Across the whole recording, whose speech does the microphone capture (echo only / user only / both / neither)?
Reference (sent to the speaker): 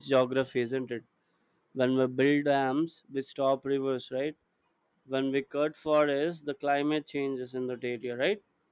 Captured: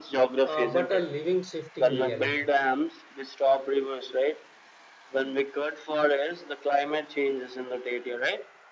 both